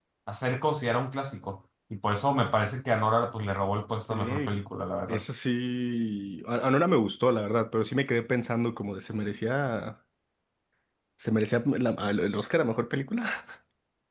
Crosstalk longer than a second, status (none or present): none